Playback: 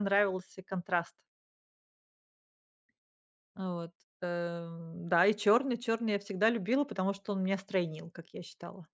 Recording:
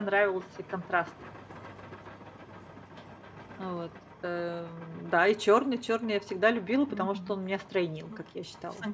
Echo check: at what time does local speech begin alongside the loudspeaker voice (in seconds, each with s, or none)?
6.9 s